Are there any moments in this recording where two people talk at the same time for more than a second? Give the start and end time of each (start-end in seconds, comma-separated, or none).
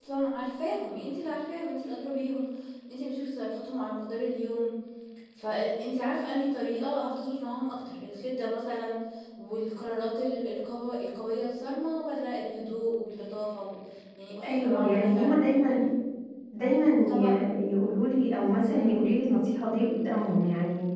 14.4-15.8